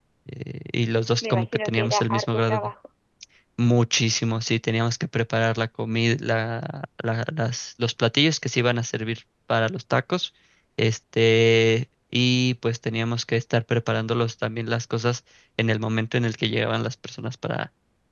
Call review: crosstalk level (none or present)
present